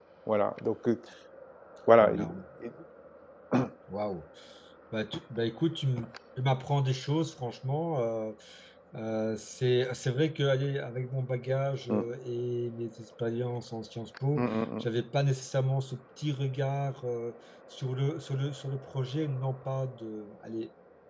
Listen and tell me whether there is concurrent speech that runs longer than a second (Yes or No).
No